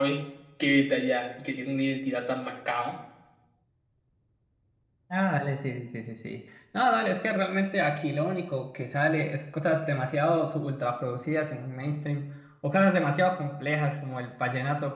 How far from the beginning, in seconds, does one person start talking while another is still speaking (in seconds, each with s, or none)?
none